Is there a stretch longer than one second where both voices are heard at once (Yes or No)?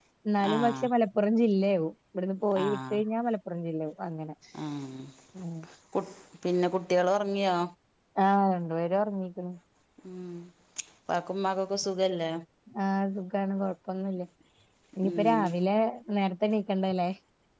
No